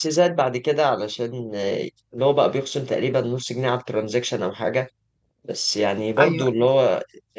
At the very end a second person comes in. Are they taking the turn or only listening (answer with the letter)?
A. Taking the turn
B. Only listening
B